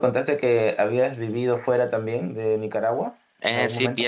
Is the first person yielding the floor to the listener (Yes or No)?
Yes